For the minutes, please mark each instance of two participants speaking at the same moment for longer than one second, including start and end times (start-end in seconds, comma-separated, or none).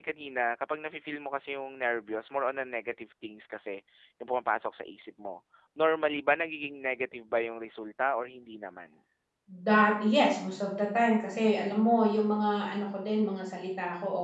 none